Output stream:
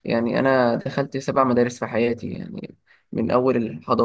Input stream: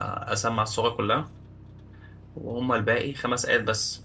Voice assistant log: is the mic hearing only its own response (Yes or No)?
No